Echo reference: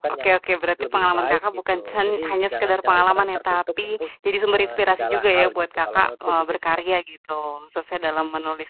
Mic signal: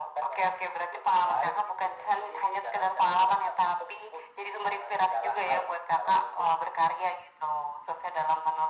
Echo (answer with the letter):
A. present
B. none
A